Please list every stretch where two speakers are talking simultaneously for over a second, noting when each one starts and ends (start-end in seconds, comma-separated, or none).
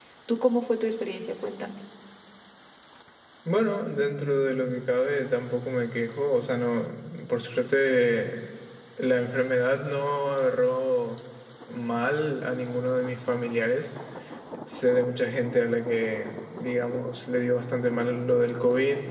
none